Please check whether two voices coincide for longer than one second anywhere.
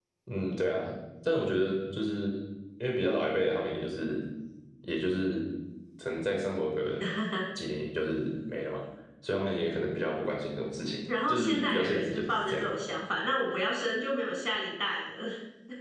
Yes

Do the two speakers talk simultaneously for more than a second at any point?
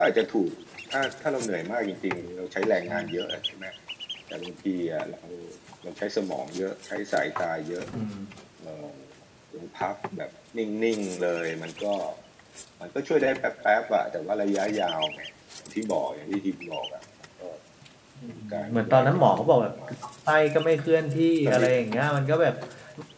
Yes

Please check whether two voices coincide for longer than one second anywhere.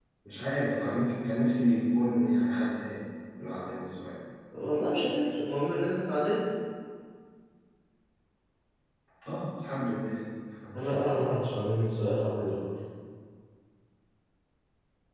No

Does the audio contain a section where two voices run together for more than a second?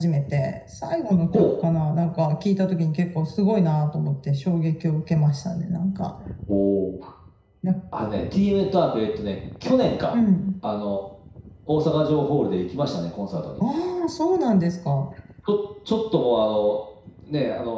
No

